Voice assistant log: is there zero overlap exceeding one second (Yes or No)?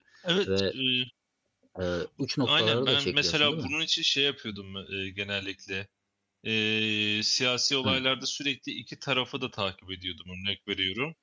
No